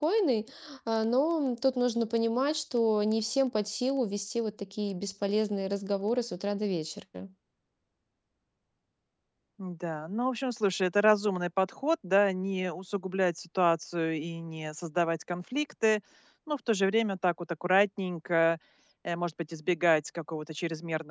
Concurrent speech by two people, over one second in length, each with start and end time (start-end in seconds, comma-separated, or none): none